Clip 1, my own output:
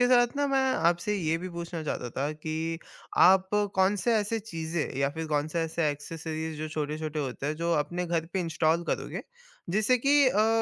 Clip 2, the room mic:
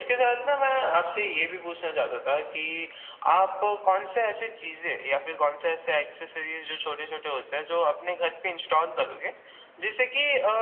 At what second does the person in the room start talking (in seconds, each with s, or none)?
none